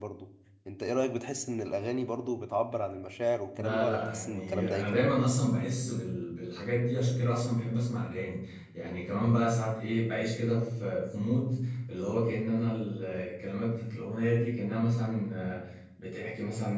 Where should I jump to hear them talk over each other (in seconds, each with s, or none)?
3.6 s